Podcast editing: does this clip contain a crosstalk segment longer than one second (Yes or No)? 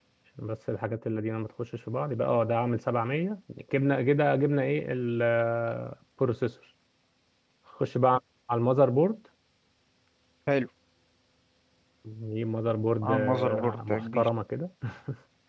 Yes